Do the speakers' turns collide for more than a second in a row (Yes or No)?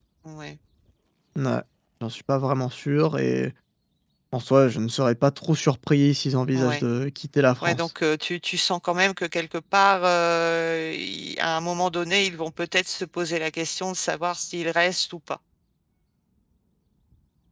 No